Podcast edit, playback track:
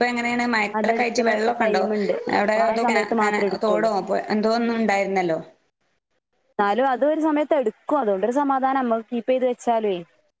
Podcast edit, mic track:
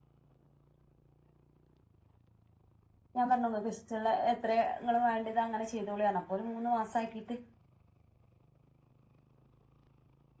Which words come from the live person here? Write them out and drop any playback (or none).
ഞാൻ പറഞ്ഞു നിങ്ങൾക്കിഷ്ട്ടൊള്ള ഇത്ര ങ്ങൾ വേണ്ടത് അങ്ങനെ ചെയ്തോളിയാണ് അപ്പൊ ഒരു മൂന്ന് മാസ ആക്കിയിട്ട്